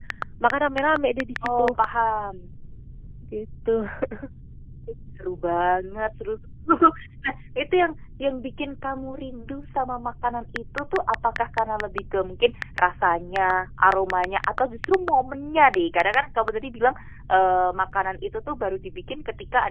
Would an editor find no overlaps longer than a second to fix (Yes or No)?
Yes